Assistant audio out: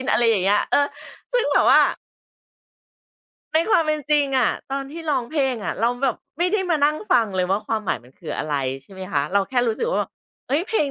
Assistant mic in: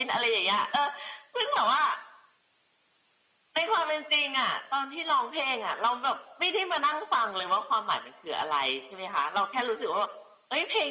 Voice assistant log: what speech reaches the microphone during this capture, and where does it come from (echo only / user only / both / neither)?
echo only